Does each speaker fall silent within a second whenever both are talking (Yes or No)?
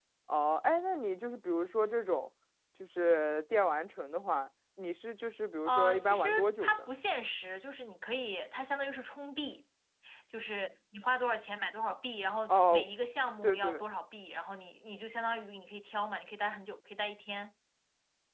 No